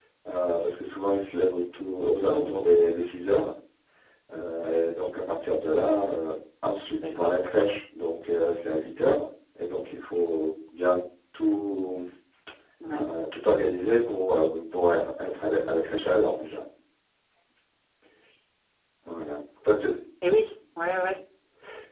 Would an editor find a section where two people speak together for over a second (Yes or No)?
No